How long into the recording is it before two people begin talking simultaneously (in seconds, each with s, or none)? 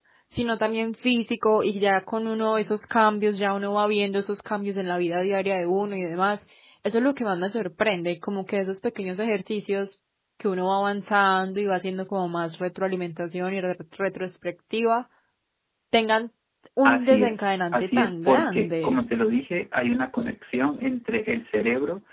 16.9 s